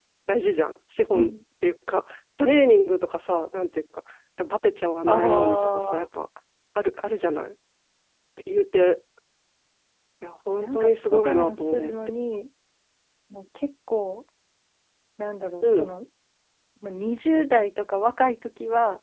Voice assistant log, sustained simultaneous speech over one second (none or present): present